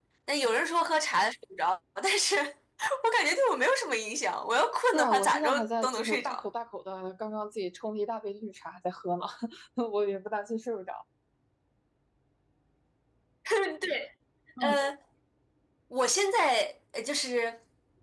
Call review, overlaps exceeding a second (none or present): present